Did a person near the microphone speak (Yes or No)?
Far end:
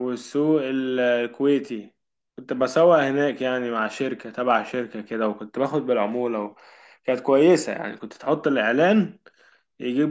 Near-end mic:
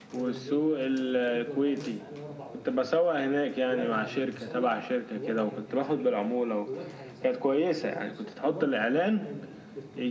Yes